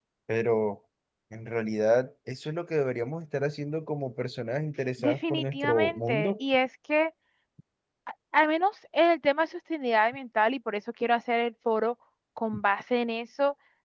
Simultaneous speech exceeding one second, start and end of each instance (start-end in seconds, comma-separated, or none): 5.0-6.4